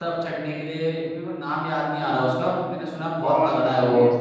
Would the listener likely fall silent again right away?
No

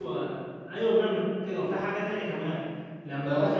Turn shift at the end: No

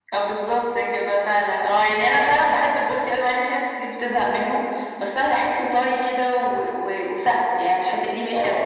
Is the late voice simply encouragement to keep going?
Yes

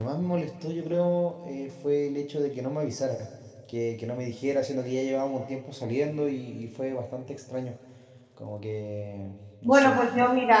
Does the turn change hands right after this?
Yes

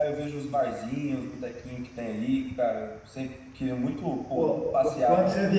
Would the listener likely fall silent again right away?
No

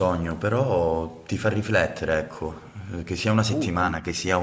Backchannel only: Yes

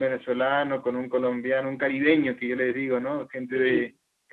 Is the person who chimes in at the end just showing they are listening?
Yes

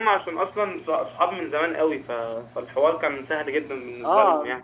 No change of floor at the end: No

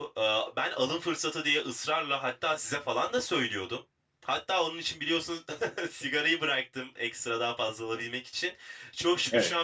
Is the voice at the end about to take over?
No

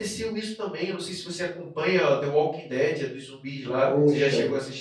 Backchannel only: No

